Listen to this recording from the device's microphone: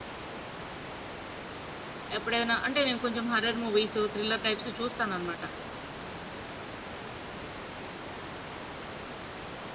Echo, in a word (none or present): none